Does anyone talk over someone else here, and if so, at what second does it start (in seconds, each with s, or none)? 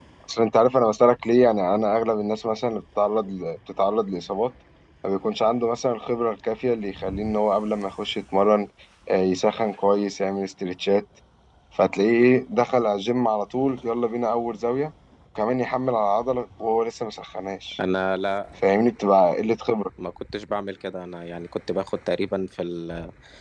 none